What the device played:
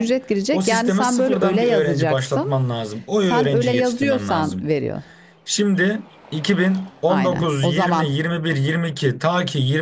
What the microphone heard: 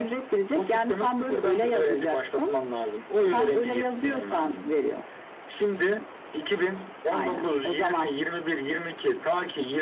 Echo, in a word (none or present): present